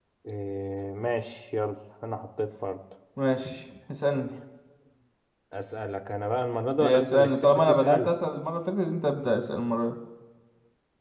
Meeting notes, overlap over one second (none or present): present